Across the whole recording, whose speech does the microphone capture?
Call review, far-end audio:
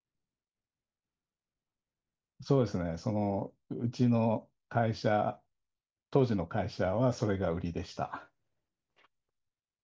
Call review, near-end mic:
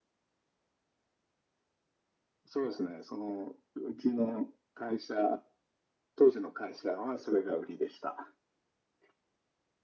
echo only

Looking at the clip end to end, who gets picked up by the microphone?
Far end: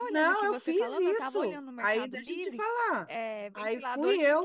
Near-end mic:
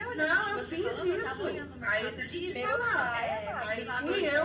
both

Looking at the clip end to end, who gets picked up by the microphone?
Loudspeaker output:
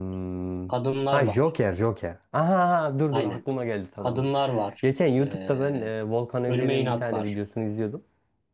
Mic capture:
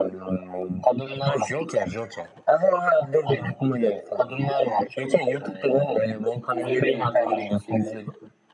both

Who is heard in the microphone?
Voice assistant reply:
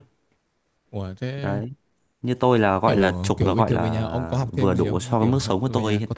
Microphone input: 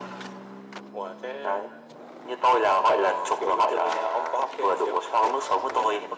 echo only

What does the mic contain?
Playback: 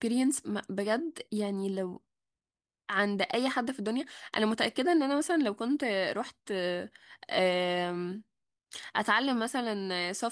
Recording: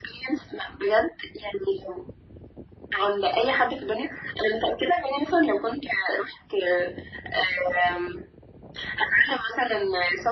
echo only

